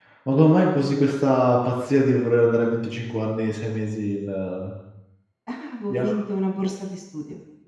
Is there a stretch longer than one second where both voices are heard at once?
No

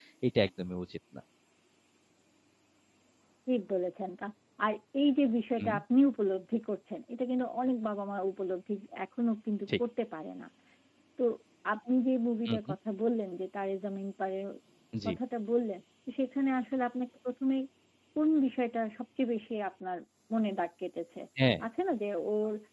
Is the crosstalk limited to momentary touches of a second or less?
Yes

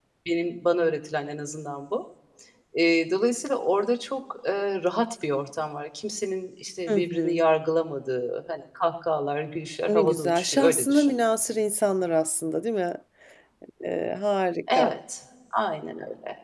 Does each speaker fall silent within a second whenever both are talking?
No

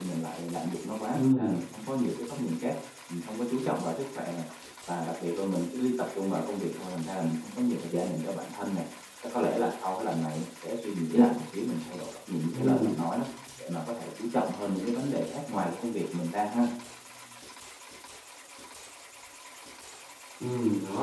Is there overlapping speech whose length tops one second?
No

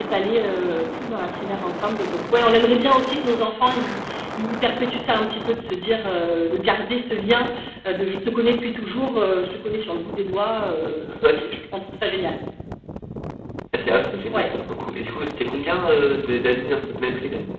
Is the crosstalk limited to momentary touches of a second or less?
Yes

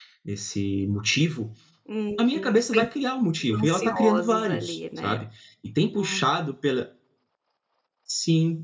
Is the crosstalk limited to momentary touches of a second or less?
No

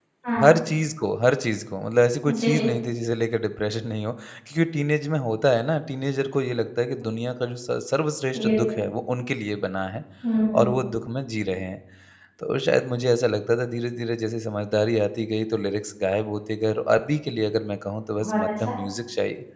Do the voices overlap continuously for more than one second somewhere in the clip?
No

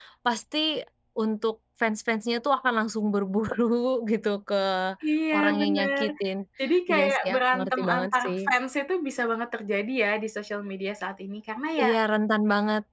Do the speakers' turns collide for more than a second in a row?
Yes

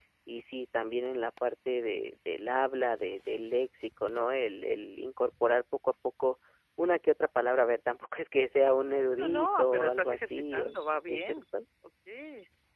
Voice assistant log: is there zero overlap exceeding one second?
No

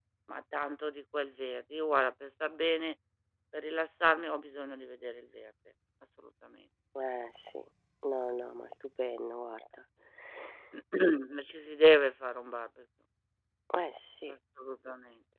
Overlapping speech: No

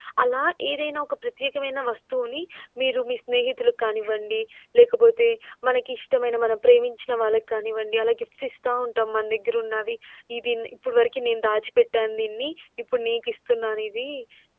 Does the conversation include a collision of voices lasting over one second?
No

